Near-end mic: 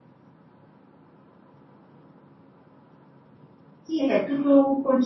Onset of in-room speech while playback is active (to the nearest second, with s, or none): 4 s